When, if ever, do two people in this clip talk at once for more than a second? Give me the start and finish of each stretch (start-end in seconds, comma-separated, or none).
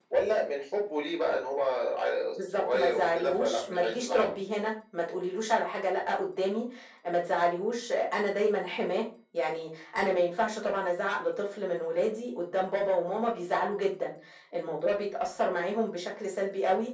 2.6-4.3